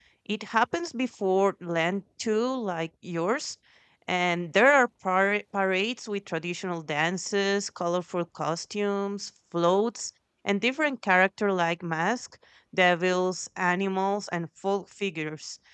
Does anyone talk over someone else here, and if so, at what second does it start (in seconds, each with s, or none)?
none